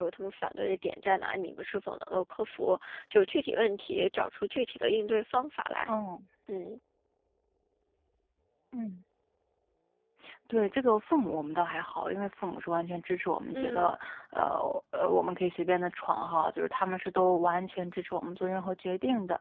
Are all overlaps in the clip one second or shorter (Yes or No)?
Yes